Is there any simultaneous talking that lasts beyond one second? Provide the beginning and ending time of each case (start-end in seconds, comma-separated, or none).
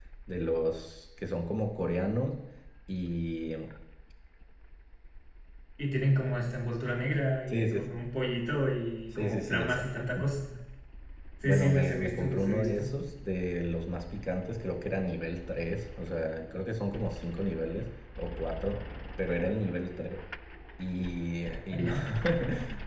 9.1-10.3, 11.4-12.9